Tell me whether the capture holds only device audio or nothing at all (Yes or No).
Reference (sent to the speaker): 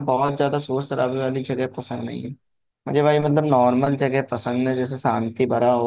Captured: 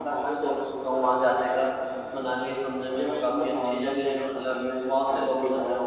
No